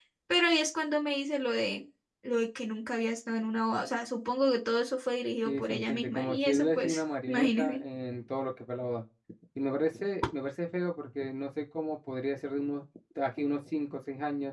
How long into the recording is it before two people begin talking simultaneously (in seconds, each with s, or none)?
5.4 s